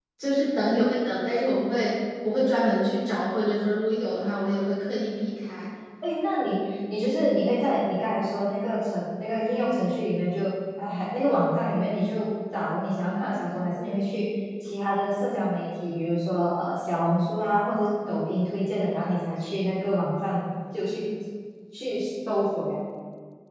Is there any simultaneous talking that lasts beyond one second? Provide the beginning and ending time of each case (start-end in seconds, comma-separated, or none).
none